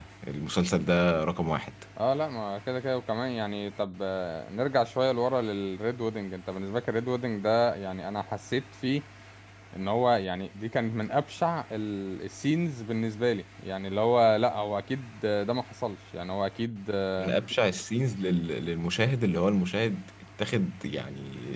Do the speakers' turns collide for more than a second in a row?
No

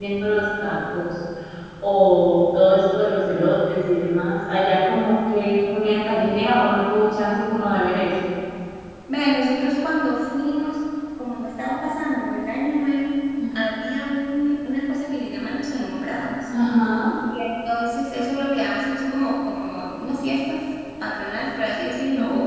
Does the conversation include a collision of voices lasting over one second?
No

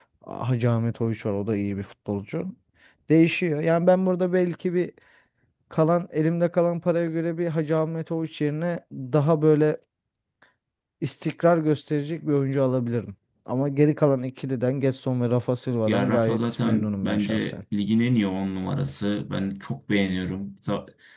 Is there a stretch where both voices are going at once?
Yes, from 15.9 s

